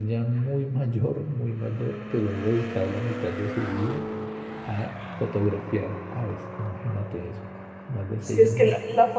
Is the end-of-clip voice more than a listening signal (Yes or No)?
Yes